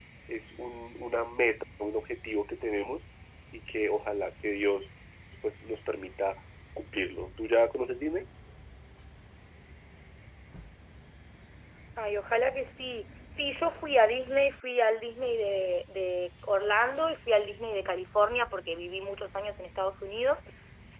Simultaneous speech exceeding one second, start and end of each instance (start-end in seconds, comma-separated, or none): none